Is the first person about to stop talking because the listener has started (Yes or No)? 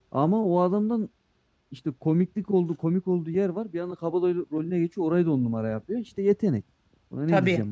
Yes